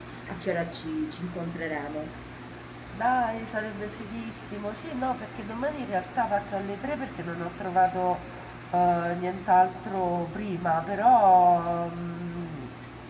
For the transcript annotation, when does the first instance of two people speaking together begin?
none

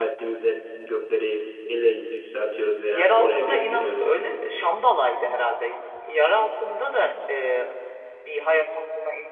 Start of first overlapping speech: 3 s

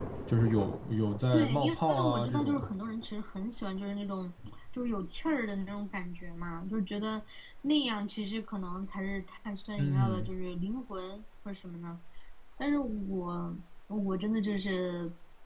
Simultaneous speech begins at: 1 s

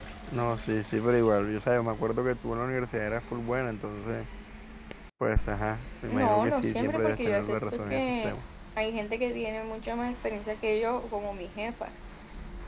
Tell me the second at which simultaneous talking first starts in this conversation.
6 s

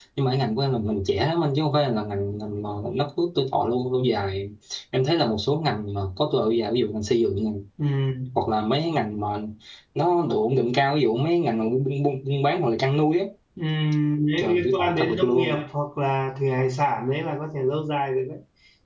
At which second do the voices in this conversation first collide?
14 s

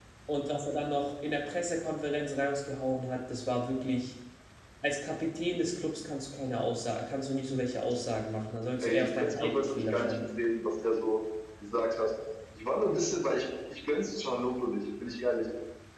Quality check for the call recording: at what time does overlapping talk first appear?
9 s

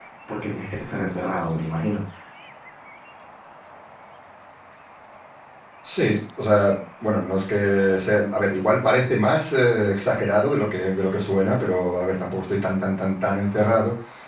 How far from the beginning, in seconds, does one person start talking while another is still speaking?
none

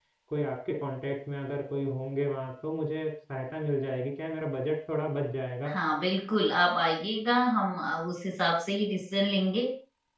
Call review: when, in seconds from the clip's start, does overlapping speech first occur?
none

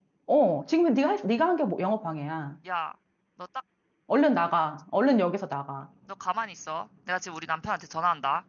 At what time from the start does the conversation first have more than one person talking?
none

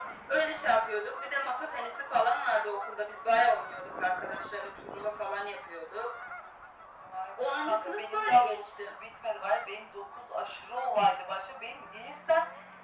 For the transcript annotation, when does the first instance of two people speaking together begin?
7 s

